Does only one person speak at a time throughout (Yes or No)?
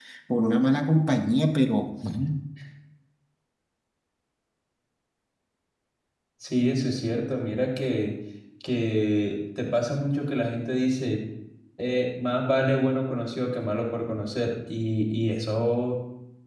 Yes